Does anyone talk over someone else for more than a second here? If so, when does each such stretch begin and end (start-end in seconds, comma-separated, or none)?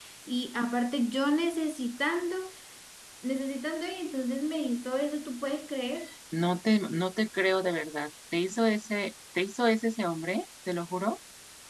none